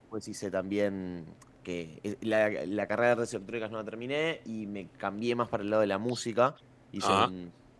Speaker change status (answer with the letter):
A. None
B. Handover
A